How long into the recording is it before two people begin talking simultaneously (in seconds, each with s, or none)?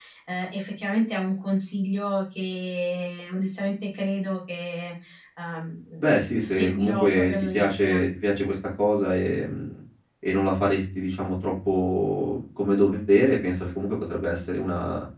6.4 s